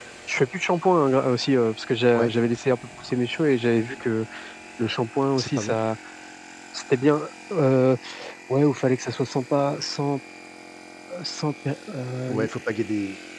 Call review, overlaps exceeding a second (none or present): none